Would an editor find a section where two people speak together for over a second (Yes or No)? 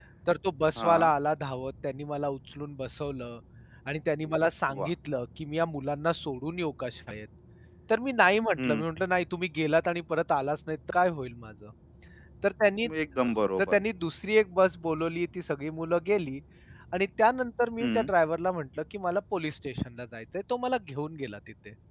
No